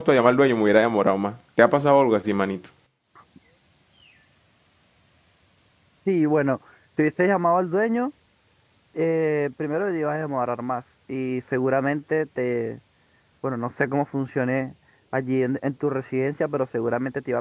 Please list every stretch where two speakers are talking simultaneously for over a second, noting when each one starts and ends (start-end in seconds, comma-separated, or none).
none